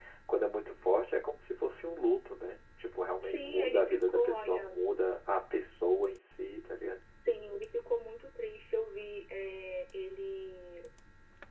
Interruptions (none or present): present